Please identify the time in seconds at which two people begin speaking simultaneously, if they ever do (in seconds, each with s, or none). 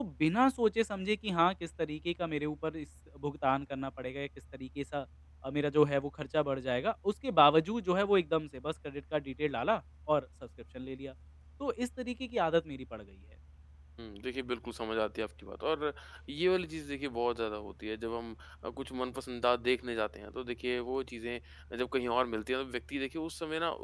none